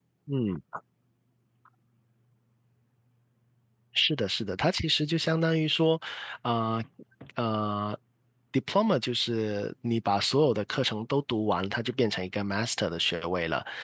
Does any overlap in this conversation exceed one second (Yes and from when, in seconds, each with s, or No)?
No